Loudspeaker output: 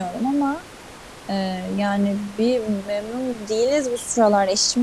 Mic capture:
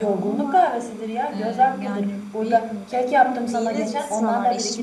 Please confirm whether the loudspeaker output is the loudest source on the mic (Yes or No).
No